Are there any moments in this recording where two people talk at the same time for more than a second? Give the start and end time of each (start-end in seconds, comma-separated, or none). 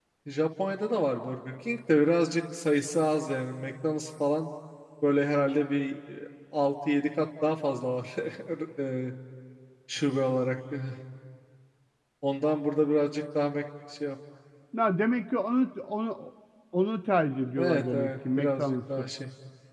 17.6-19.1